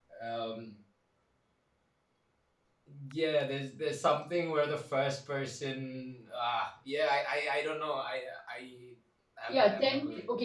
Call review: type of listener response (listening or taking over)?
taking over